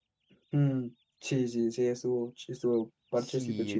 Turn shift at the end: Yes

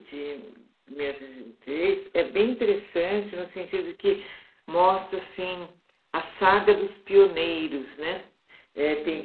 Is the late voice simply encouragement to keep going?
Yes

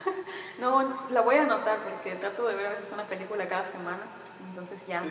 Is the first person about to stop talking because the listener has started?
Yes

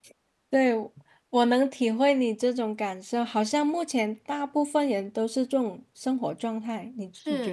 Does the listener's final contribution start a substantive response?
Yes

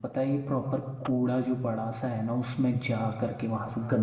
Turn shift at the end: No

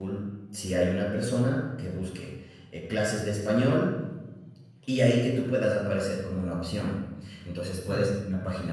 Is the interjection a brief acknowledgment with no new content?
Yes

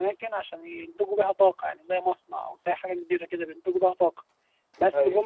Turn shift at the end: No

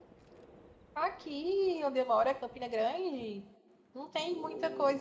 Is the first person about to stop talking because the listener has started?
No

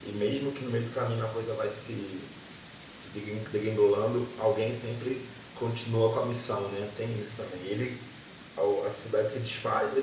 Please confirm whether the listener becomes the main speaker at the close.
No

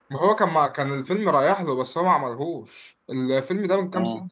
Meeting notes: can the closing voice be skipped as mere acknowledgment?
Yes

